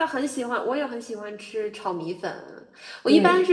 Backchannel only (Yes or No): Yes